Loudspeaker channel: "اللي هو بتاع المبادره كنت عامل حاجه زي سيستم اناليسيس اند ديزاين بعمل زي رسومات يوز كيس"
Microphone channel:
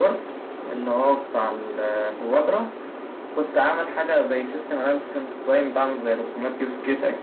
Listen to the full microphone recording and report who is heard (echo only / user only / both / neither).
echo only